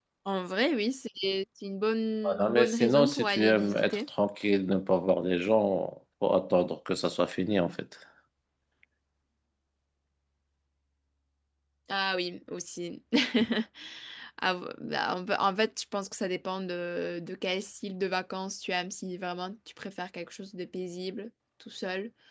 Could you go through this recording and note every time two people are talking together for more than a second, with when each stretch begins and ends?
2.2-4.0

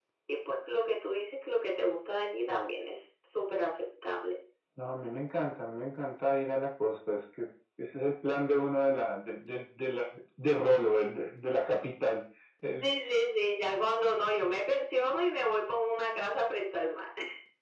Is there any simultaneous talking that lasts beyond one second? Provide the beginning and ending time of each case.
none

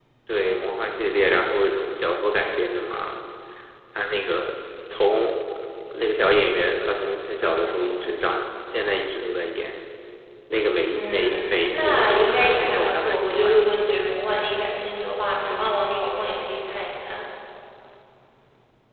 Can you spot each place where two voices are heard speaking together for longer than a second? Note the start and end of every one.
10.9-13.7

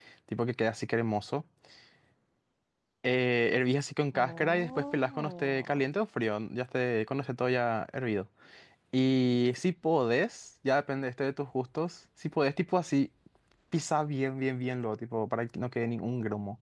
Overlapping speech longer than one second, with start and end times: 4.1-5.8

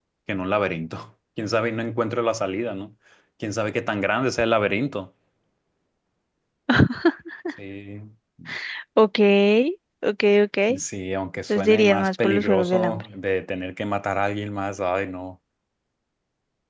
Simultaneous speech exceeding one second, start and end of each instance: 11.6-13.0

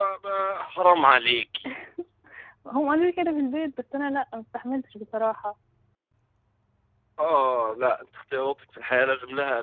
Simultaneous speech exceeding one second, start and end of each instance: none

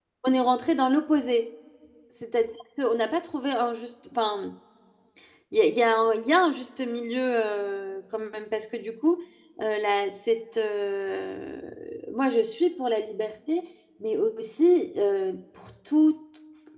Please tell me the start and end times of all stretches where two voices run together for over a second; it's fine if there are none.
none

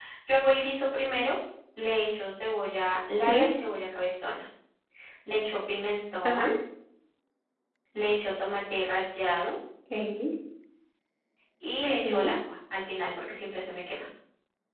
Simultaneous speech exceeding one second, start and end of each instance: none

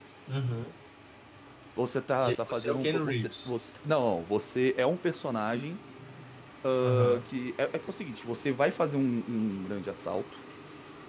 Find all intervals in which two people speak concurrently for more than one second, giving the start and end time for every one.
2.2-3.5

